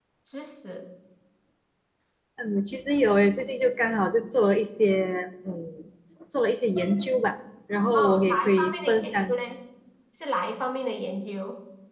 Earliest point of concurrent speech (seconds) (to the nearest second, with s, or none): 8 s